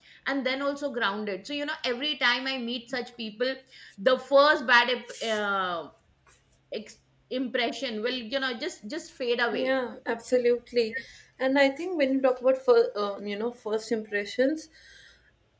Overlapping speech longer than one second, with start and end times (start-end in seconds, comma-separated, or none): none